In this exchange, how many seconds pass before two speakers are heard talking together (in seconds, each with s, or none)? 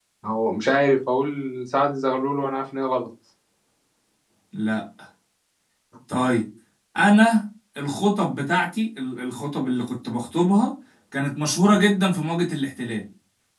none